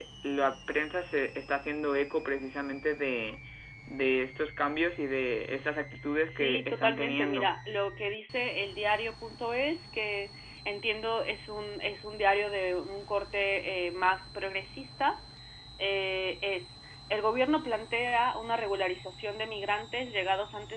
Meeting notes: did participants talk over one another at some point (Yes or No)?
Yes